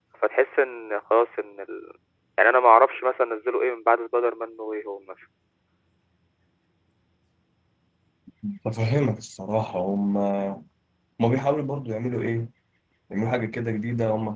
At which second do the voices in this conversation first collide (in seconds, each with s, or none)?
none